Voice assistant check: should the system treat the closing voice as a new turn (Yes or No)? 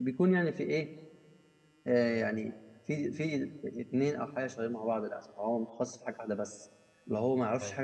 Yes